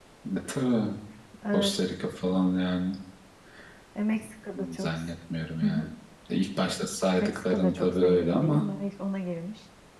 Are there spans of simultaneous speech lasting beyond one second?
Yes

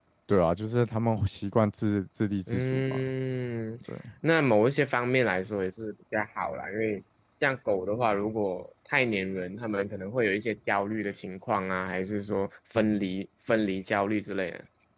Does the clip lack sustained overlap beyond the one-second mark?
Yes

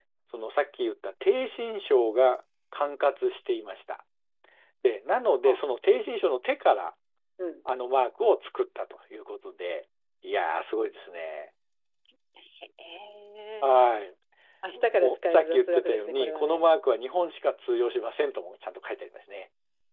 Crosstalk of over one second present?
Yes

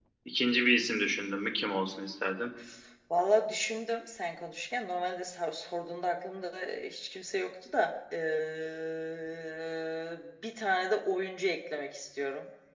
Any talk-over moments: No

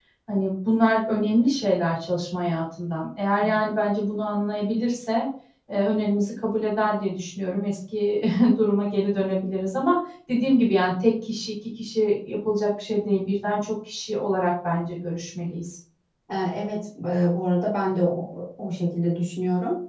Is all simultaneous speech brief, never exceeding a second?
Yes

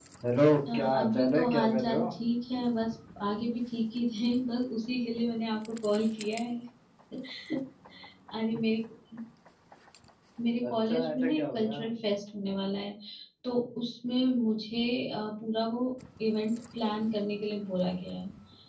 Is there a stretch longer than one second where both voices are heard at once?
Yes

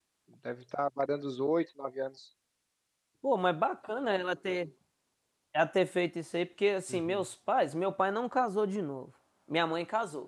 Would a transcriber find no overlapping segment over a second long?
Yes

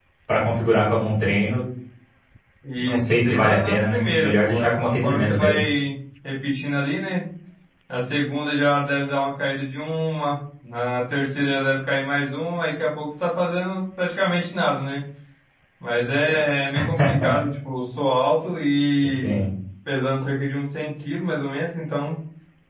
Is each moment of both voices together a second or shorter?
No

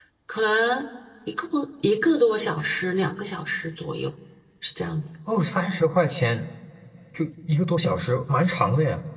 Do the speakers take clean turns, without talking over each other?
Yes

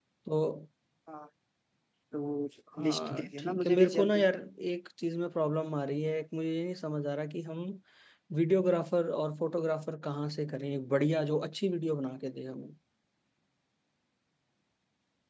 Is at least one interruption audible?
Yes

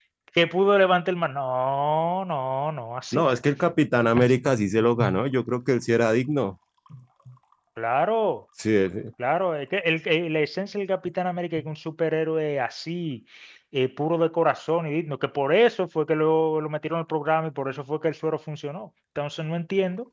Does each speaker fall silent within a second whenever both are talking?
Yes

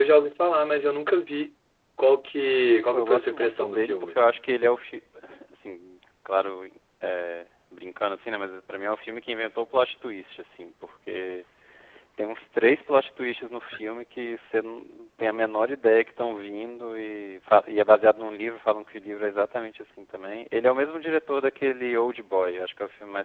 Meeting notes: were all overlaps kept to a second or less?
No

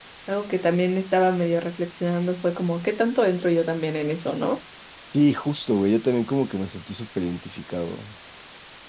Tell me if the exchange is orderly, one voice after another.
Yes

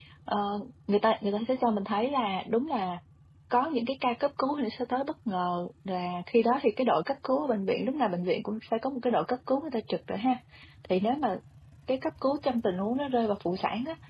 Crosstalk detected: No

